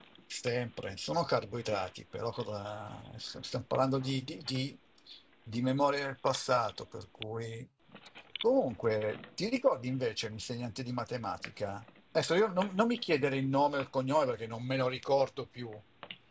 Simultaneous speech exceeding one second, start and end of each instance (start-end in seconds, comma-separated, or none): none